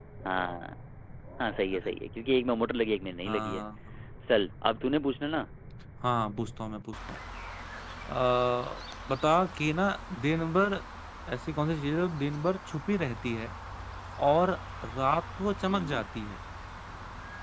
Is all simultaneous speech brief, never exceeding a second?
Yes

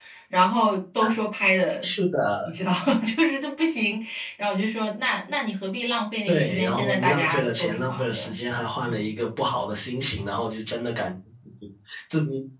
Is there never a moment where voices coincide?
No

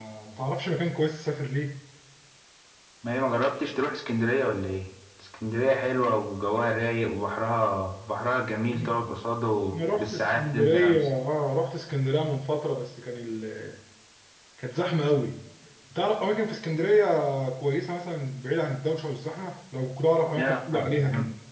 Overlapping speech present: Yes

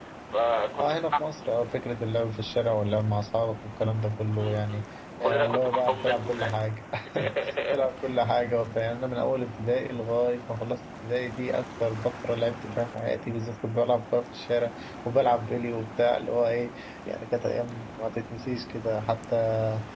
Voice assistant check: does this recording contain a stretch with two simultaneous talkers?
Yes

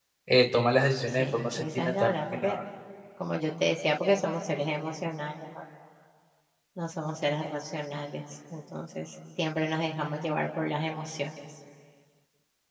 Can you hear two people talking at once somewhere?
Yes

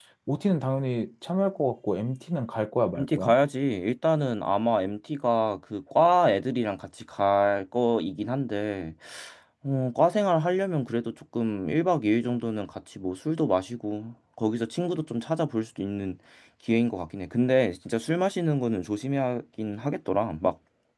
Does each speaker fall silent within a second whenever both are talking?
Yes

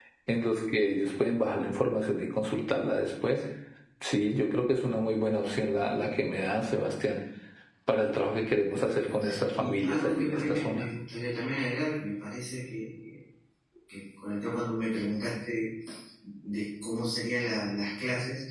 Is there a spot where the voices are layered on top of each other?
Yes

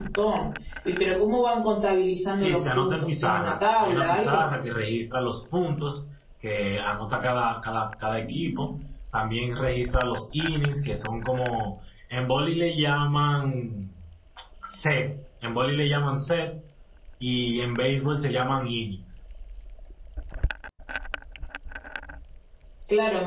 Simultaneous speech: Yes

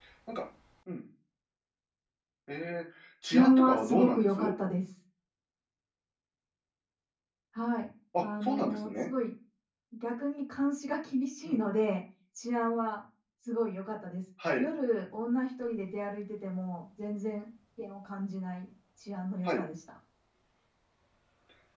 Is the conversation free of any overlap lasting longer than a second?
No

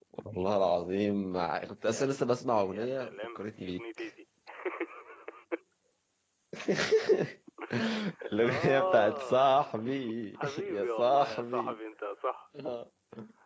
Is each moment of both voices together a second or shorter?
No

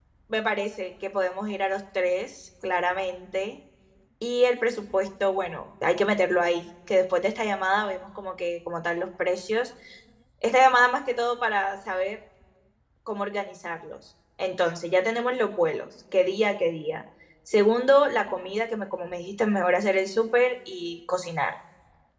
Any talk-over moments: No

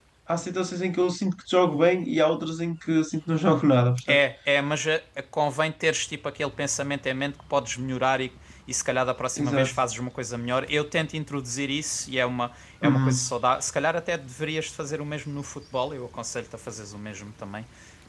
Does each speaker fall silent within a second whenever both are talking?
Yes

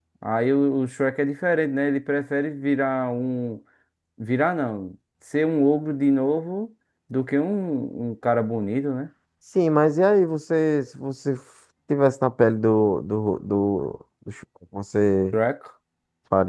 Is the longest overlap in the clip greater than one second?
No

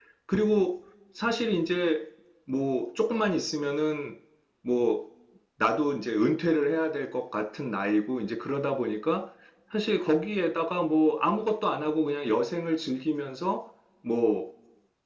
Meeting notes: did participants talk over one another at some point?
No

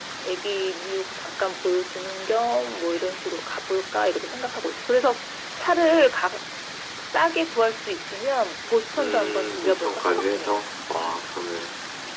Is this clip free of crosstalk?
No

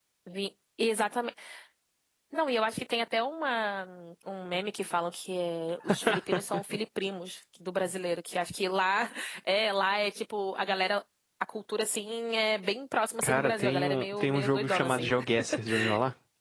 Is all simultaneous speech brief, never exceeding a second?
No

